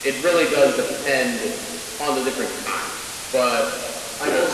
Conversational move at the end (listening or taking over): listening